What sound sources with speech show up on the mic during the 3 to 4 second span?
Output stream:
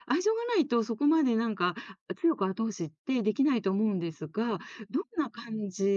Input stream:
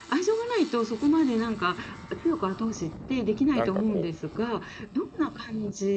both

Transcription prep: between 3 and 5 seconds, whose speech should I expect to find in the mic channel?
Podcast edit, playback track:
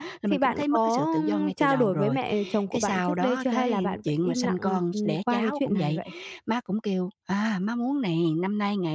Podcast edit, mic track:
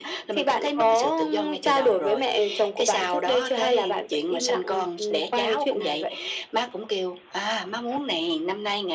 echo only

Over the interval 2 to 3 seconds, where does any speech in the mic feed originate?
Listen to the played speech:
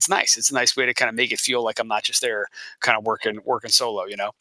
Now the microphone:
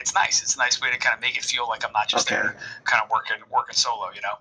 both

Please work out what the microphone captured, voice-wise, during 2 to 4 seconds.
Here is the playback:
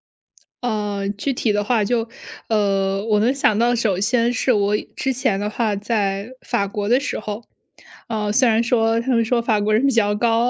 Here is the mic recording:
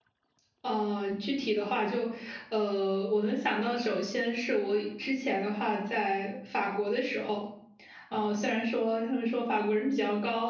echo only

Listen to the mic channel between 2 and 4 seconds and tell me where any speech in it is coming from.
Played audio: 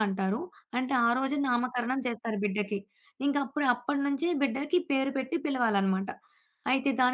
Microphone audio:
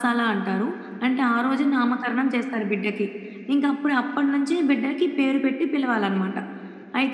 echo only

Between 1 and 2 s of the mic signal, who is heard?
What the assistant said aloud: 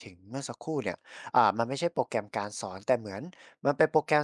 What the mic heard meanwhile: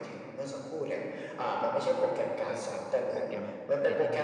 echo only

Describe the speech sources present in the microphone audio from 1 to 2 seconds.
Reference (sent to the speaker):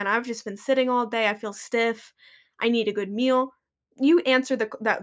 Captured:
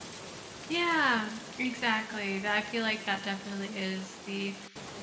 user only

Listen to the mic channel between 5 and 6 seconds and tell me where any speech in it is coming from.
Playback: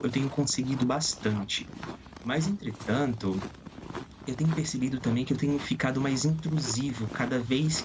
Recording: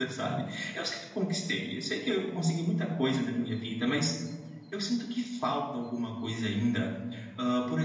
user only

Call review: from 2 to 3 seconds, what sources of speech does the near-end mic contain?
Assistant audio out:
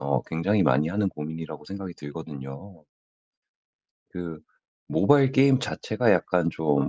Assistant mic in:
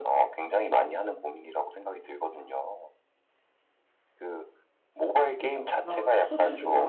echo only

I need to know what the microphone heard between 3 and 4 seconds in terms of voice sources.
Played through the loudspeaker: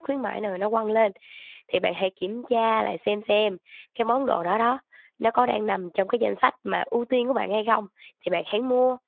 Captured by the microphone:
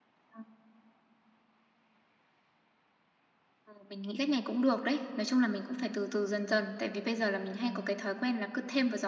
user only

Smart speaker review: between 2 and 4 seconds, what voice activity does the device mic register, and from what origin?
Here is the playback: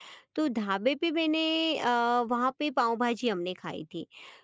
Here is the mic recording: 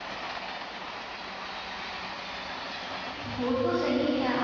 user only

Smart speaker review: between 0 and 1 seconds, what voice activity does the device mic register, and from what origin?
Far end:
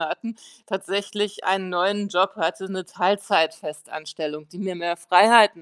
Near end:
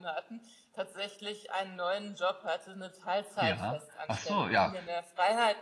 echo only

